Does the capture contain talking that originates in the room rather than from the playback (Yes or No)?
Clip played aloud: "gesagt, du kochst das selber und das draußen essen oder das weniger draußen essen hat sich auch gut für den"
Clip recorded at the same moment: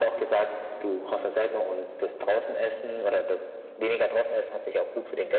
No